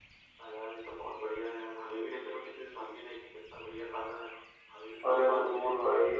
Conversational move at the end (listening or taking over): taking over